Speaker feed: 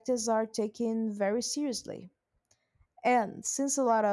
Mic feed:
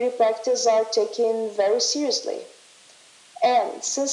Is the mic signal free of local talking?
Yes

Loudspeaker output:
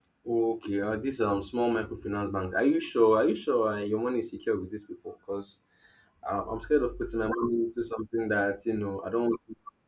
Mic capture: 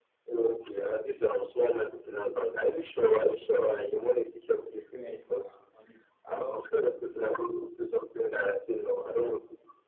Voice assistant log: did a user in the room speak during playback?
Yes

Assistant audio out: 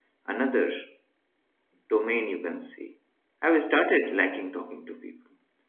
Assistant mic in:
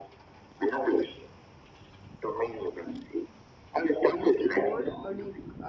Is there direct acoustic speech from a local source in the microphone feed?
Yes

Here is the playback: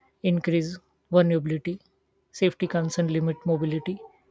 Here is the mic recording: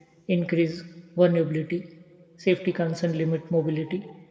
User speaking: No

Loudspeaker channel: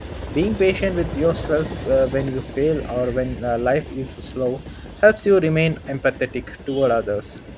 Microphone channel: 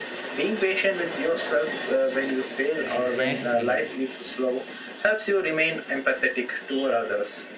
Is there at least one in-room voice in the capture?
Yes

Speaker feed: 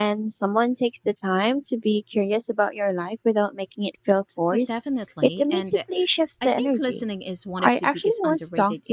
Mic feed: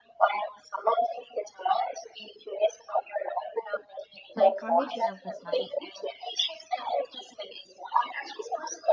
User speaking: Yes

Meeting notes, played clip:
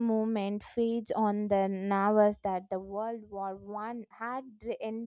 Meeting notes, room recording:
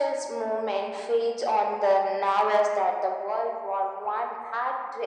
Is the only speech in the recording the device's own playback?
Yes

